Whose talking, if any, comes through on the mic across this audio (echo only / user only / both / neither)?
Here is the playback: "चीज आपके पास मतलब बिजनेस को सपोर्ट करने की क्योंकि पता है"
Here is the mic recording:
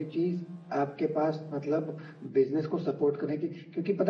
echo only